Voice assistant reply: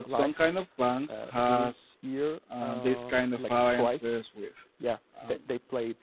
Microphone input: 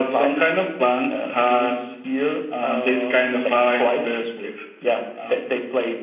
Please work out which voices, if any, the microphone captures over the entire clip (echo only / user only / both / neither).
echo only